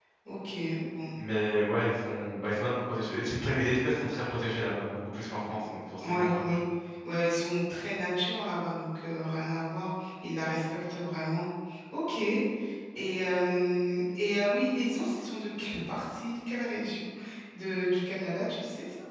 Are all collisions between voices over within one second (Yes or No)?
Yes